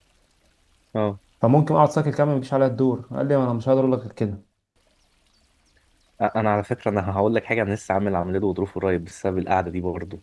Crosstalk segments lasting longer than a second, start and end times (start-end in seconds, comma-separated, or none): none